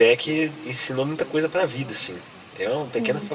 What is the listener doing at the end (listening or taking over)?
taking over